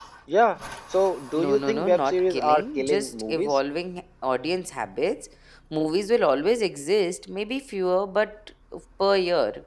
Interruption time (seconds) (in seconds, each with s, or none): 1.4 s